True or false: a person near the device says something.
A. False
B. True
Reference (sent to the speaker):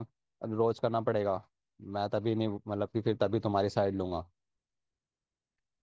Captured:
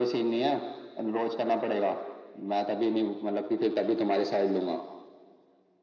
A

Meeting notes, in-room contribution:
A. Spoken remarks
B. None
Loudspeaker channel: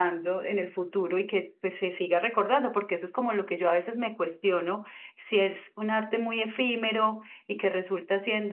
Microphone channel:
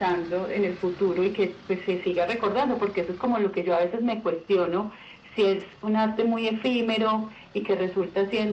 B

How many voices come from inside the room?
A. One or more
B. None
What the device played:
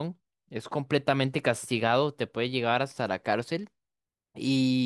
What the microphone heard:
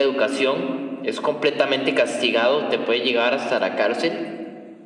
B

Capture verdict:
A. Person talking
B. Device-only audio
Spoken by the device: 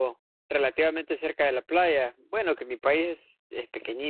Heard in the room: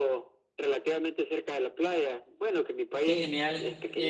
A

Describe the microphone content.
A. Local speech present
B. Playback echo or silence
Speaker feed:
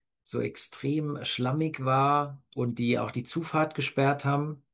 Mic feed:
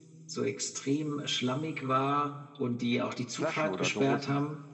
A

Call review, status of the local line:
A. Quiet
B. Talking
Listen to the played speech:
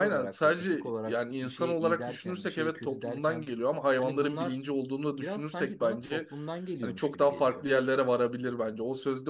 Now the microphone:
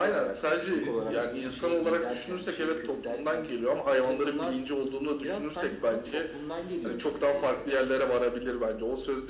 B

